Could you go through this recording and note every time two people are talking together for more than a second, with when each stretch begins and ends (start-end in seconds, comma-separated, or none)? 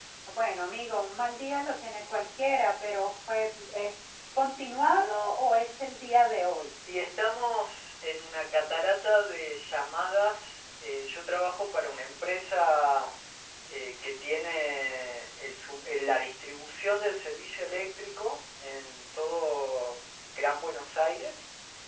none